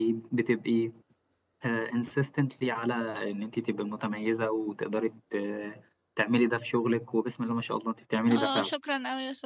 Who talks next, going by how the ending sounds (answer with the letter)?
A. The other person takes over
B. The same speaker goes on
A